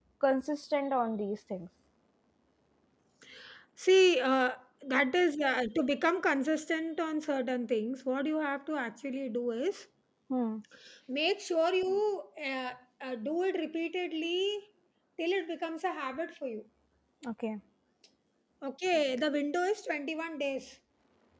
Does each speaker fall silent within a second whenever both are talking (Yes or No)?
Yes